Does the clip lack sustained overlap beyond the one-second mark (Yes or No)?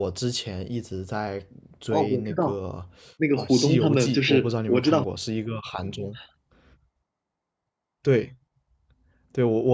No